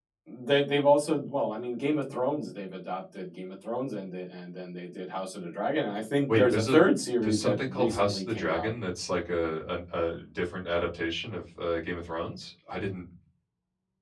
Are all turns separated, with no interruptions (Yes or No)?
No